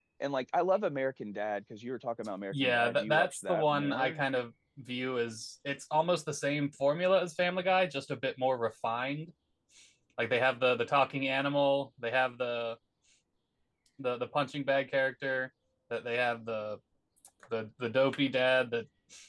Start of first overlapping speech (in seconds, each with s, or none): 2.5 s